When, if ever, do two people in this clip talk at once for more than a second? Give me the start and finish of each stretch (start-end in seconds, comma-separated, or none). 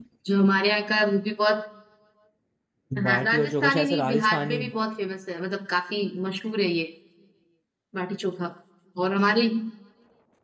3.0-4.6